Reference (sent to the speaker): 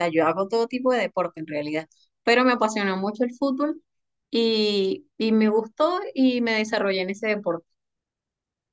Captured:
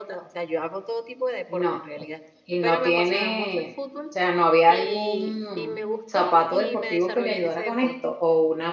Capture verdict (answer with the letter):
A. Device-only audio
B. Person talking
B